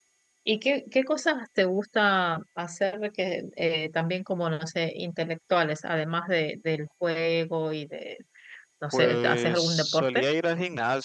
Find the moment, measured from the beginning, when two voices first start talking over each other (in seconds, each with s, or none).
8.9 s